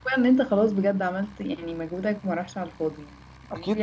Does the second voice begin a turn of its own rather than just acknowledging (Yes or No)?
Yes